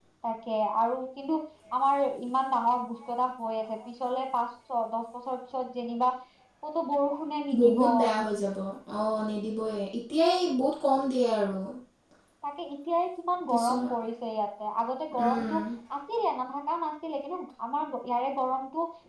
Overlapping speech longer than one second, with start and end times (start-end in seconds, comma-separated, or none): none